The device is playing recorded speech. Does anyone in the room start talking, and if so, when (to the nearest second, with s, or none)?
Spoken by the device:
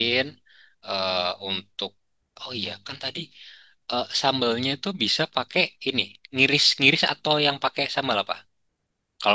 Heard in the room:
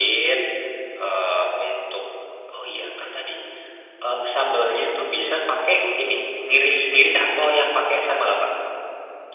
none